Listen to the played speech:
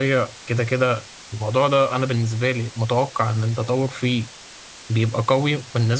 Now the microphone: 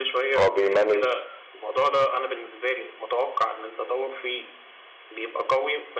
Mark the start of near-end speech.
0.4 s

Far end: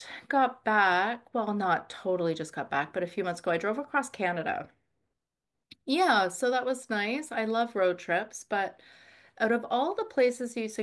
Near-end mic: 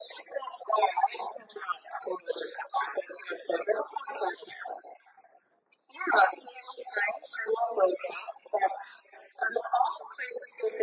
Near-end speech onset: none

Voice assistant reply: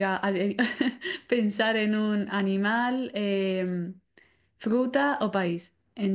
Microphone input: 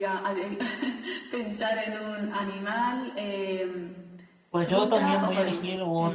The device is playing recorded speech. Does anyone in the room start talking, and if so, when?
4.5 s

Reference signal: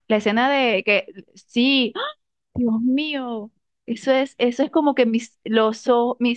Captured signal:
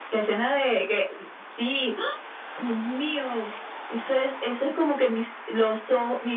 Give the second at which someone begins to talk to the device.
none

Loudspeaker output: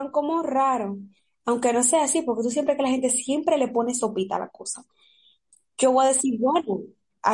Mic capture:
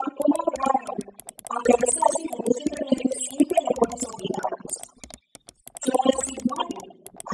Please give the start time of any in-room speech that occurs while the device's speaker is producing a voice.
none

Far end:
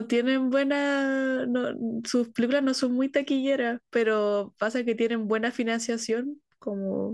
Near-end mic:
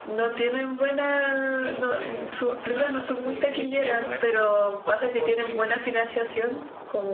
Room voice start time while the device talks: 1.5 s

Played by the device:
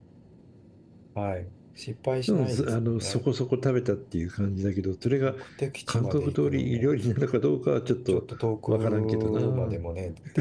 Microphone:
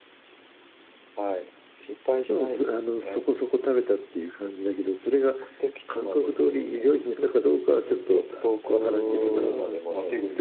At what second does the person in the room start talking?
7.6 s

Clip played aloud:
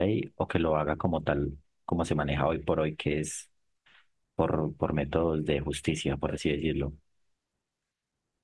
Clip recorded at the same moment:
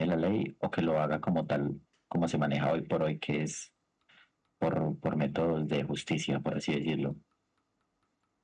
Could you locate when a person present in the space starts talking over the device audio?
none

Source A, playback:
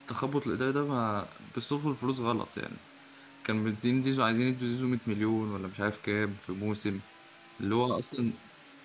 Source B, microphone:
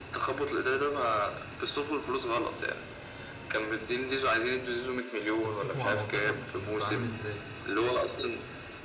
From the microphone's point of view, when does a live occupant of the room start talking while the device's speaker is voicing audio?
5.4 s

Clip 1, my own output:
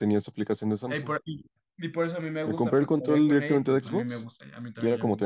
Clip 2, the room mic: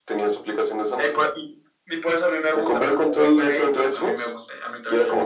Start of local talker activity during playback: none

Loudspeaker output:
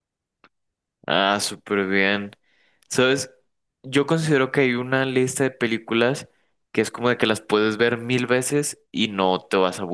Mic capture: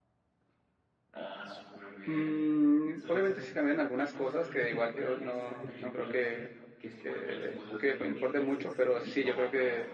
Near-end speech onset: 2.0 s

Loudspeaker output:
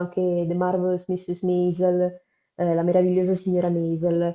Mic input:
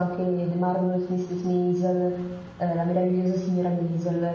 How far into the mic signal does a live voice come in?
none

